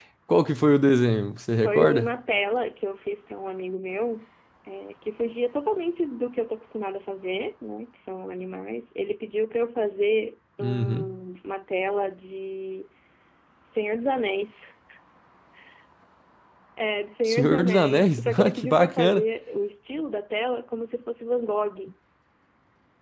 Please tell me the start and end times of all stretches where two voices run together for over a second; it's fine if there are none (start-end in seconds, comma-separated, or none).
17.2-19.2